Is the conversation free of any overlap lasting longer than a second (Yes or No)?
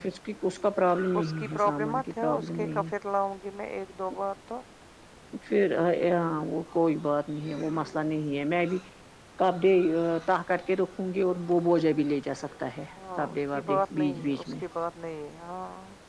No